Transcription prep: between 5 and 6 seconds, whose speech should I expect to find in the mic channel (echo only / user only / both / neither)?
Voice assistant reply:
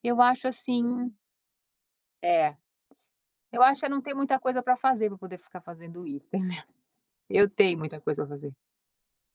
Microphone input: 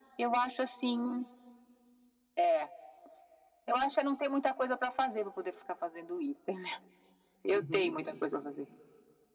echo only